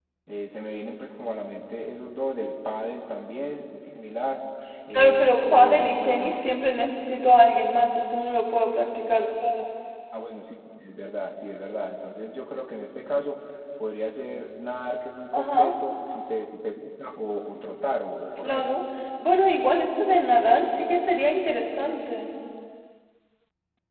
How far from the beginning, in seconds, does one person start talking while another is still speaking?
5 s

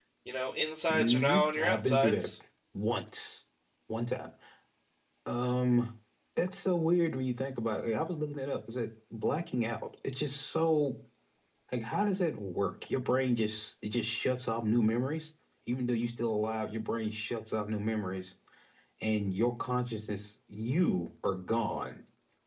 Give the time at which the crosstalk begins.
1 s

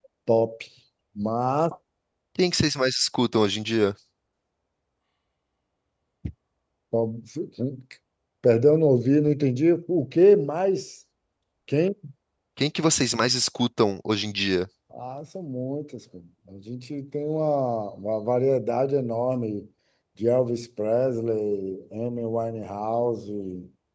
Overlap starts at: none

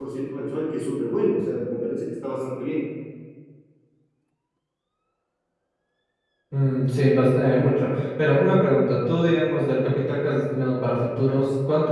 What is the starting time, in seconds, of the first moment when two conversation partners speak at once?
none

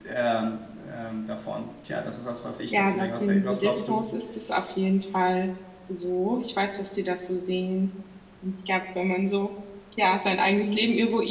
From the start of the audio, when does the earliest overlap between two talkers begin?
3 s

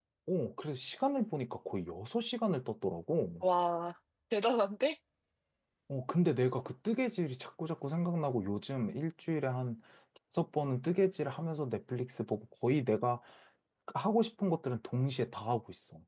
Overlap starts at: none

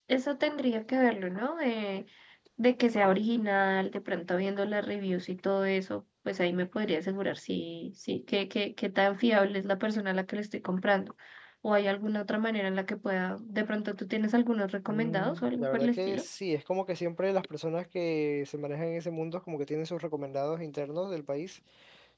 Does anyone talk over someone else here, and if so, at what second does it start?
15 s

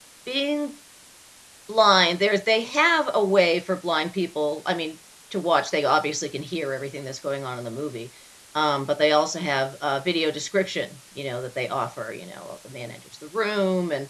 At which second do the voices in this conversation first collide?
none

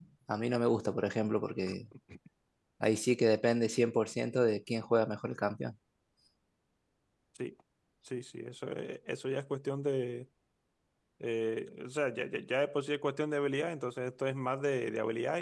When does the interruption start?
none

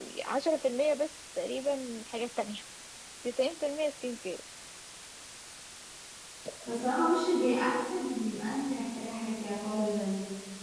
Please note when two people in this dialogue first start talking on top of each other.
none

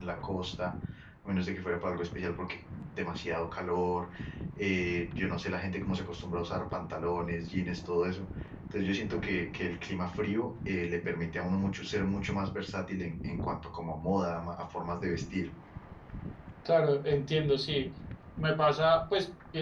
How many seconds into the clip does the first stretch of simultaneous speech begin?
none

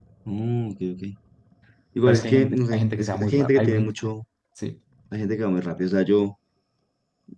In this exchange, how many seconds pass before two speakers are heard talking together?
2 s

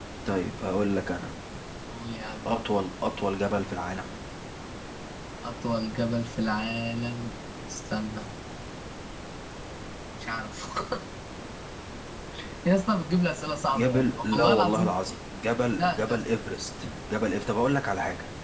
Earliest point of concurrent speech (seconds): 14 s

